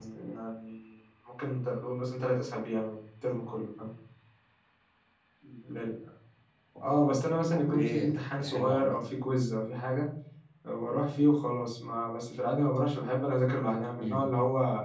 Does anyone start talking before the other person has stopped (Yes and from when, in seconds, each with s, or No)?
Yes, from 7.5 s